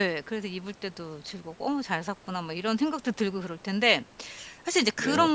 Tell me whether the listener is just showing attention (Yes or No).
Yes